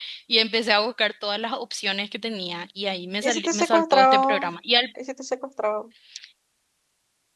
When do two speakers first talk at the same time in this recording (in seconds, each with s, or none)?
3.2 s